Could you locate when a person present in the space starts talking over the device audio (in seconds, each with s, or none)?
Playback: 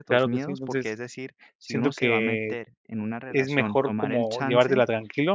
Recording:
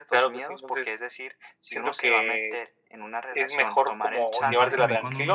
4.3 s